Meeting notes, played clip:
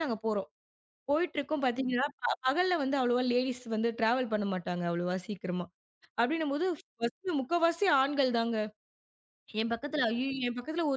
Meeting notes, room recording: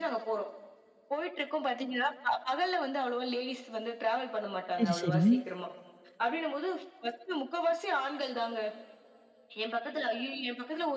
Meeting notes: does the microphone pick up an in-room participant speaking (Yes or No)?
Yes